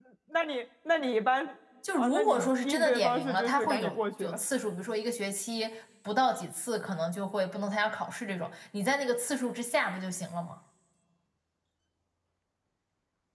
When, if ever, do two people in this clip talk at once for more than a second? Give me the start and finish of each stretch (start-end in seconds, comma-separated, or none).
1.9-4.3